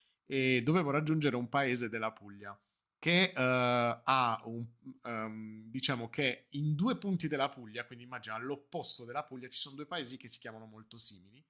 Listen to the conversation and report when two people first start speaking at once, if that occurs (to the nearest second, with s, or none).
none